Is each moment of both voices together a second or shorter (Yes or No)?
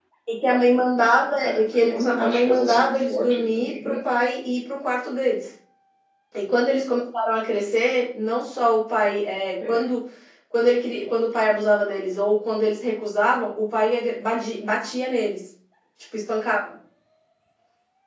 No